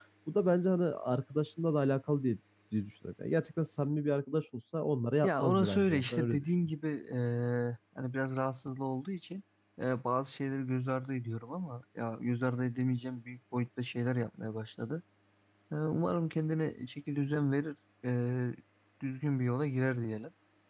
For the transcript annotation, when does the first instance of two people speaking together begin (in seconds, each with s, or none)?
5.2 s